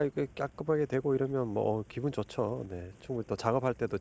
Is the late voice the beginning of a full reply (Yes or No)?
No